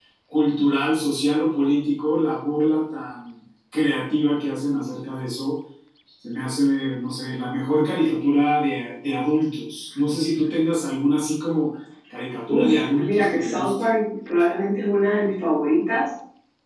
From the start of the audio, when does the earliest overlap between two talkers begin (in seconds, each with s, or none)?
12.5 s